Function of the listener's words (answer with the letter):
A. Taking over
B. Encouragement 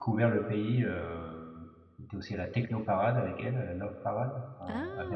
A